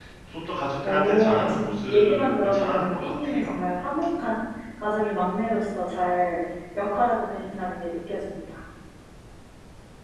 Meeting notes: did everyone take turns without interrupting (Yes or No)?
No